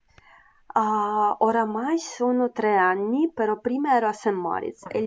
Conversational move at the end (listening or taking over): listening